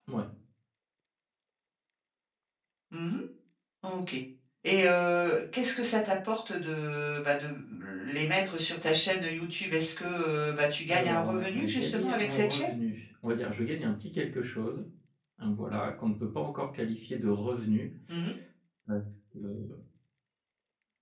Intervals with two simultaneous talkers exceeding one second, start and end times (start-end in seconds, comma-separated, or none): 10.9-12.7